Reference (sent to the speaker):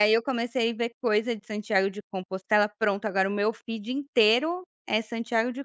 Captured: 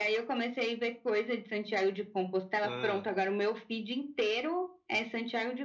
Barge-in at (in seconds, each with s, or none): 2.6 s